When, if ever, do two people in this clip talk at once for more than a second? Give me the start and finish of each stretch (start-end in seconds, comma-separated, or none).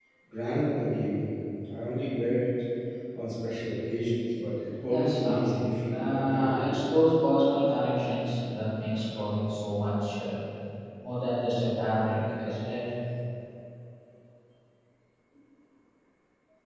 4.8-6.7